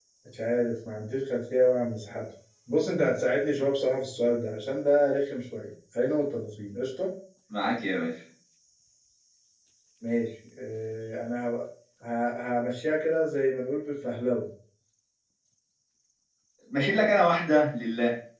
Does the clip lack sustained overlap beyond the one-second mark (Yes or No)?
Yes